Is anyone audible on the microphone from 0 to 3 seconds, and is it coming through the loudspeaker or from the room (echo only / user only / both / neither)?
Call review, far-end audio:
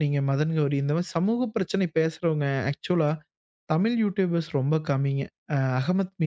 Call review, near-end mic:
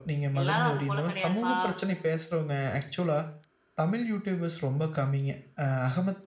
both